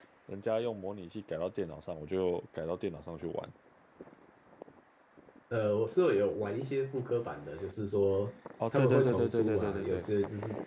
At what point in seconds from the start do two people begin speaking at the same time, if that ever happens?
8.6 s

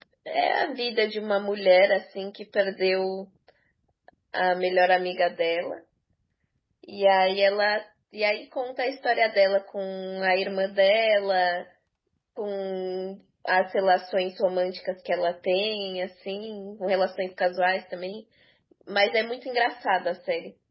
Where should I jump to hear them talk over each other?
none

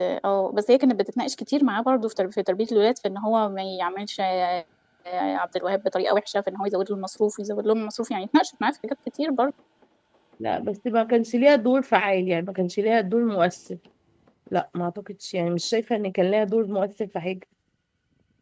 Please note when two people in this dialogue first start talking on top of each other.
none

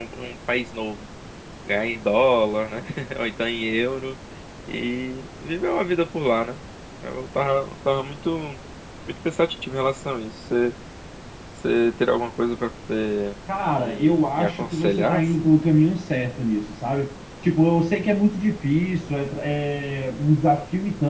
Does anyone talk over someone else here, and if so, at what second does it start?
13.8 s

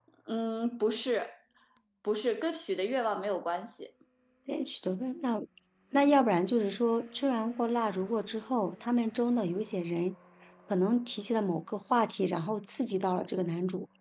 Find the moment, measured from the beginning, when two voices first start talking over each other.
none

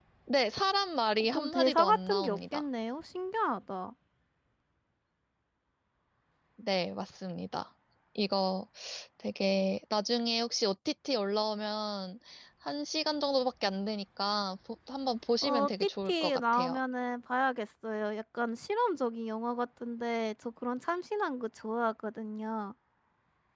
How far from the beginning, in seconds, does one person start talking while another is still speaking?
1.2 s

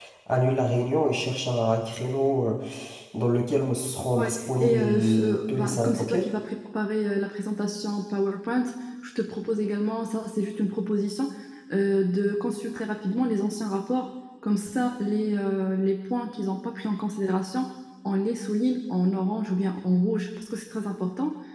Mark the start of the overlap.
4.2 s

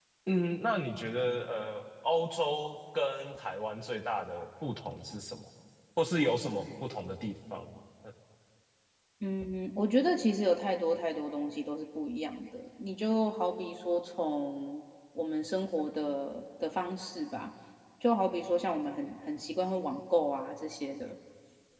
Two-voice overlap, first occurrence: none

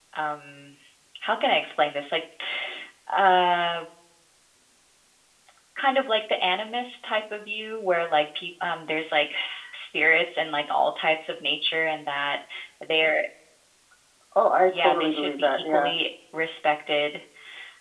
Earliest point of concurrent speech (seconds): 14.7 s

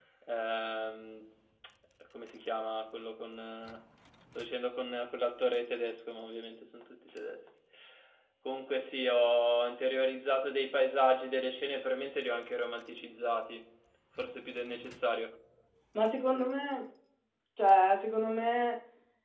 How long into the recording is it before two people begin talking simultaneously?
none

